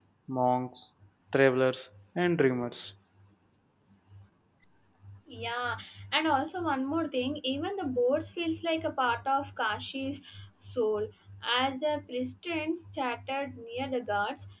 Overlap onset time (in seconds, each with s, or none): none